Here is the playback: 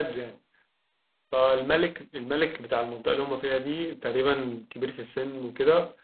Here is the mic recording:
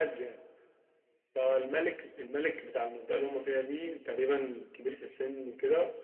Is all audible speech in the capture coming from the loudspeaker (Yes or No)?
Yes